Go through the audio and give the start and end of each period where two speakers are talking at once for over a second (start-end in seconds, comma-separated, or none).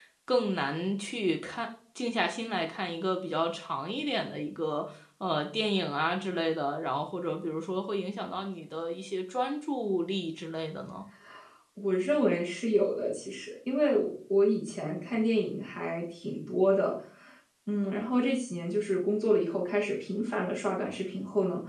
none